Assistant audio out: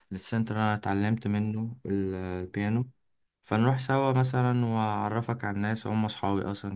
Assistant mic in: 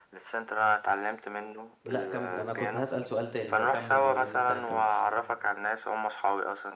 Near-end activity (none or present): present